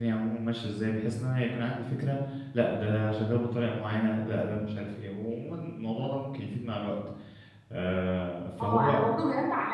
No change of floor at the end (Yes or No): No